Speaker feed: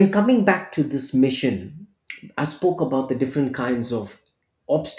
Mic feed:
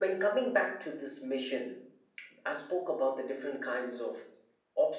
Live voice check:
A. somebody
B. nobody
B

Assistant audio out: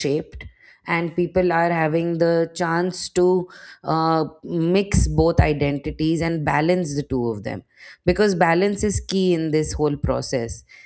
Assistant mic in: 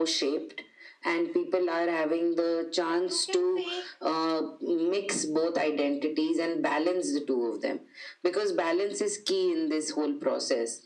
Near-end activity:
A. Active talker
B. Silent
A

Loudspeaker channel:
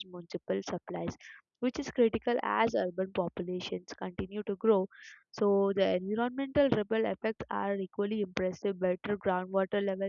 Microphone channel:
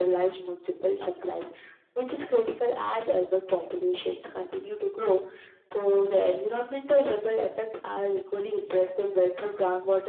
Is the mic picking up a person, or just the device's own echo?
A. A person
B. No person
B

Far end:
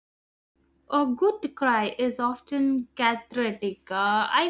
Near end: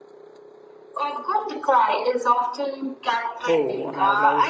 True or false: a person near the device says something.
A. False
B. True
B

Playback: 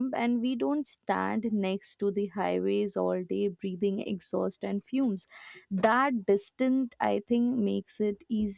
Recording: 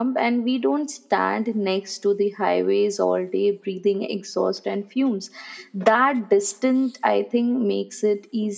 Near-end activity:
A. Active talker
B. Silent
B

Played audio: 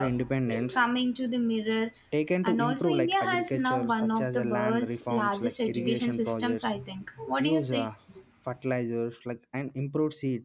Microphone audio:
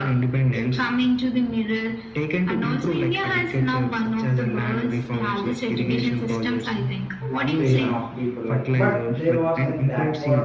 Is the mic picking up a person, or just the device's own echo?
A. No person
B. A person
B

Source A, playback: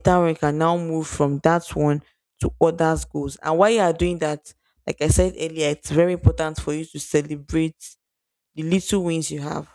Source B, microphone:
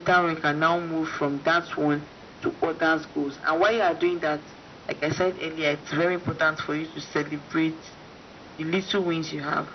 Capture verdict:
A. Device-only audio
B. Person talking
A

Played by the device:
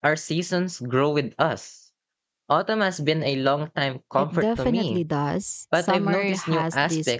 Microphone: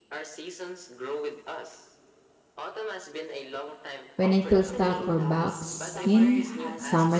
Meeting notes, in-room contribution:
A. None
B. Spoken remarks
B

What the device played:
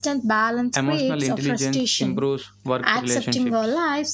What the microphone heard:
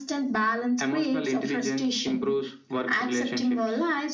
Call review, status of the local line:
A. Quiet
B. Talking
A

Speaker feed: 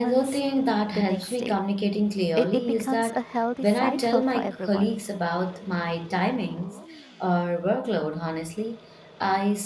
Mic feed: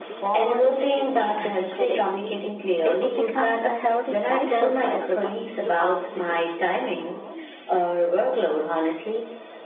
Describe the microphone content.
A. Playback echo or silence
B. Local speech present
B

